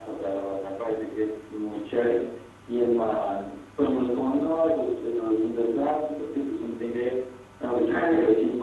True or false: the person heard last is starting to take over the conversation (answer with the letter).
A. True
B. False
B